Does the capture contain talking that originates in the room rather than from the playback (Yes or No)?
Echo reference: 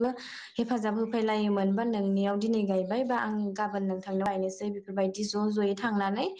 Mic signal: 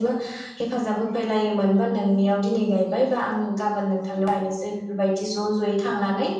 No